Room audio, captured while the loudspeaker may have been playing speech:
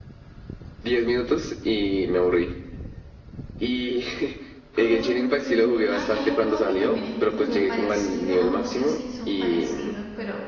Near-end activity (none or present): present